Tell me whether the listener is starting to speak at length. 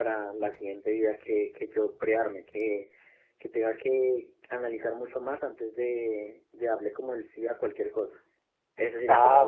Yes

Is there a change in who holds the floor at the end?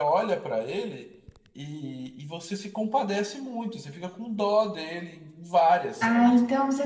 Yes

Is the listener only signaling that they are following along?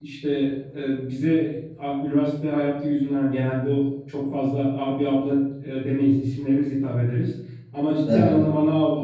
Yes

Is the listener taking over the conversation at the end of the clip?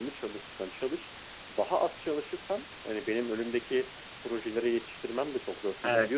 No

